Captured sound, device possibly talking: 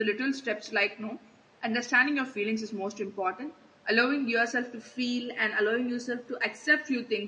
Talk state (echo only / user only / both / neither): user only